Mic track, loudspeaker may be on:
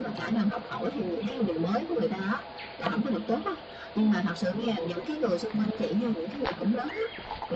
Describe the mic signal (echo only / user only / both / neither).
echo only